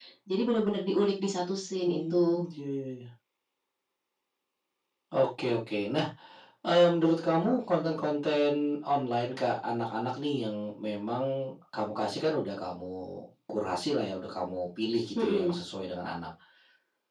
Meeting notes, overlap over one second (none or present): none